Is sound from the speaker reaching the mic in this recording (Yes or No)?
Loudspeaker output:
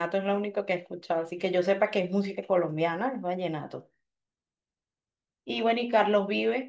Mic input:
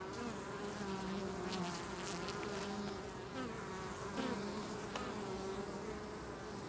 No